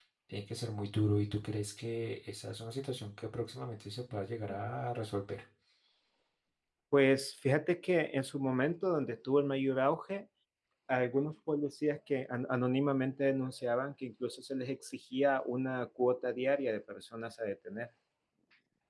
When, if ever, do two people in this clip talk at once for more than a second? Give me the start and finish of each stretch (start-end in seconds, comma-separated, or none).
none